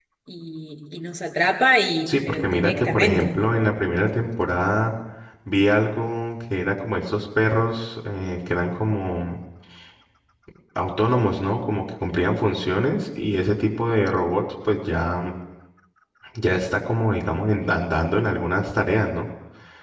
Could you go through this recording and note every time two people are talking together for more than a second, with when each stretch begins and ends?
2.1-3.3

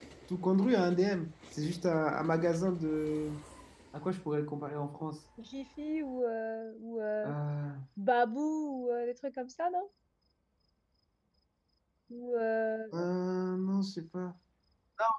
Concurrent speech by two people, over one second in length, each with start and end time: none

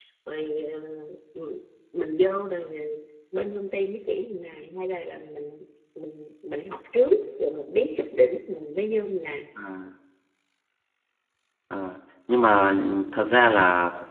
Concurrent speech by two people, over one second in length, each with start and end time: none

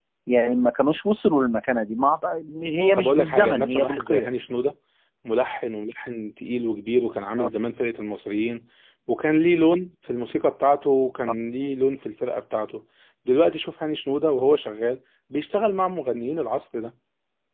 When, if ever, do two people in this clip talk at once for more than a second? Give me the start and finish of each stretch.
3.0-4.3

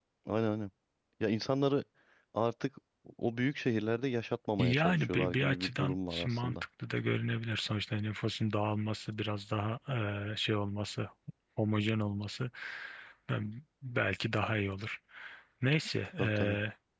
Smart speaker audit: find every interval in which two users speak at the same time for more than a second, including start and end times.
4.6-6.5

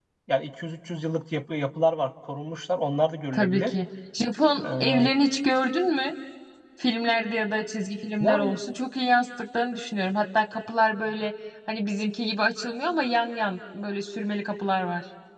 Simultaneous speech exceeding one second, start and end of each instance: none

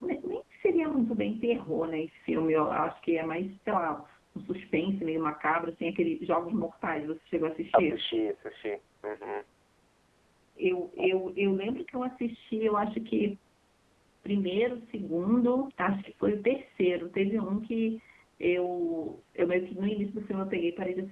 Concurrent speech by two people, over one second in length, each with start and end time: none

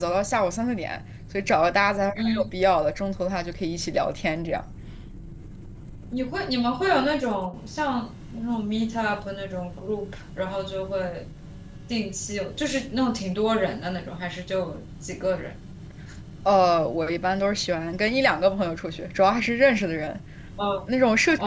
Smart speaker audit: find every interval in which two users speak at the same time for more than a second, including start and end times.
none

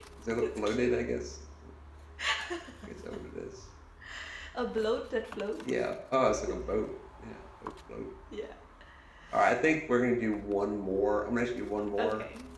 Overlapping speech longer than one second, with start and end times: none

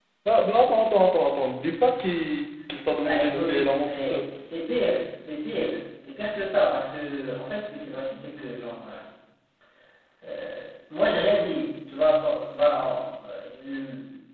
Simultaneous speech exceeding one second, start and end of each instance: 3.0-4.3

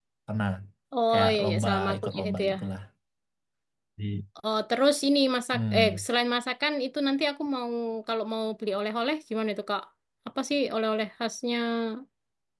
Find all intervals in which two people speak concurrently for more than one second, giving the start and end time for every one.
1.1-2.5

